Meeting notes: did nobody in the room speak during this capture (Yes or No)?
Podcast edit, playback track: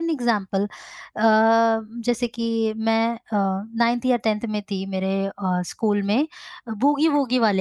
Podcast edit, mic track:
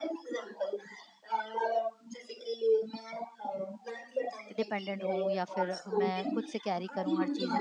No